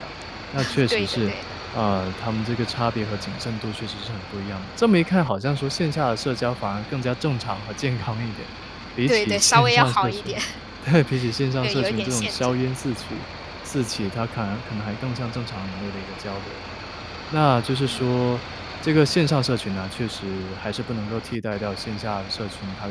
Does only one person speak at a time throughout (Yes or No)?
No